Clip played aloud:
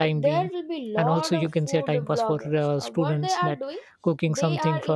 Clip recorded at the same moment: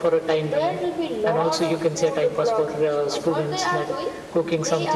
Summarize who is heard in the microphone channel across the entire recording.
echo only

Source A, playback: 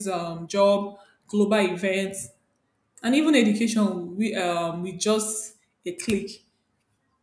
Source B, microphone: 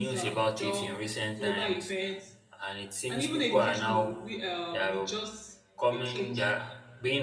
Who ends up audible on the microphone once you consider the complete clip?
both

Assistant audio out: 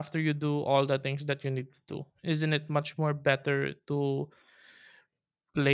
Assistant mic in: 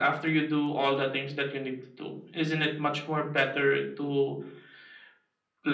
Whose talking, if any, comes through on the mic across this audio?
echo only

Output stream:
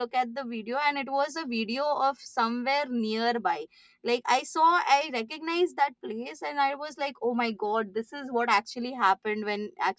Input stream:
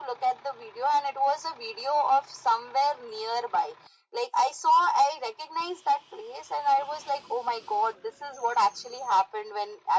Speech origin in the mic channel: echo only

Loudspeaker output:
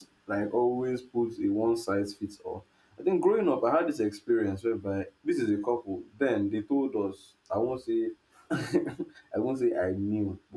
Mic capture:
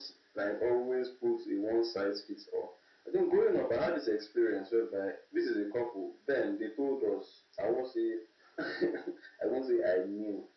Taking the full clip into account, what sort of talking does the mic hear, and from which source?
echo only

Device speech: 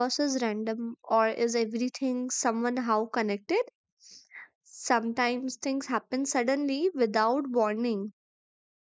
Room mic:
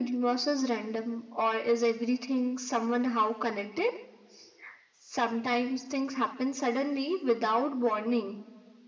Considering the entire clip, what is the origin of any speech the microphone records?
echo only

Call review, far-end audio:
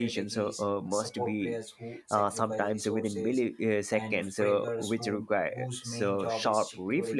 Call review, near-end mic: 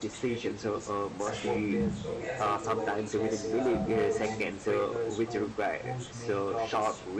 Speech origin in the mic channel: both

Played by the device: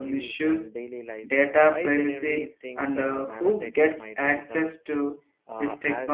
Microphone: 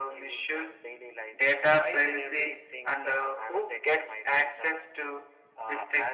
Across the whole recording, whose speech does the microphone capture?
echo only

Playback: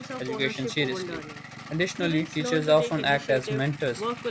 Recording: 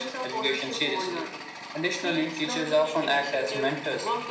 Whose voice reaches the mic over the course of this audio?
echo only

